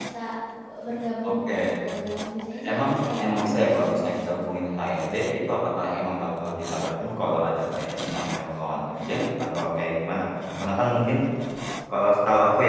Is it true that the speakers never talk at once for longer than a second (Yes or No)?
No